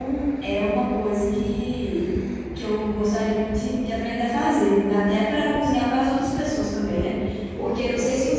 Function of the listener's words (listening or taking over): listening